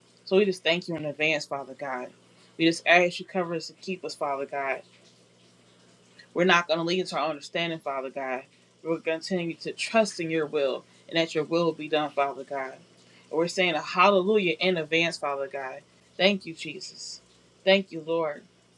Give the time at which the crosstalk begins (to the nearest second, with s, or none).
none